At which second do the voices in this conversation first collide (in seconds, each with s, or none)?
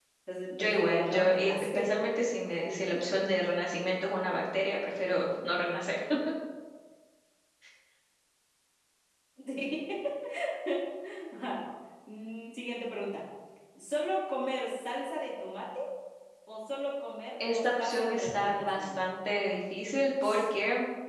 0.6 s